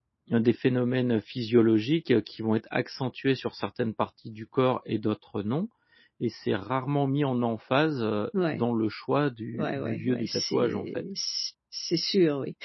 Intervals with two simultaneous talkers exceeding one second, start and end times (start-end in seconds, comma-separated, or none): 9.5-11.0